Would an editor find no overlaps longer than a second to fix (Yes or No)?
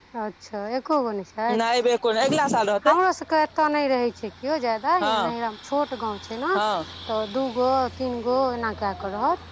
Yes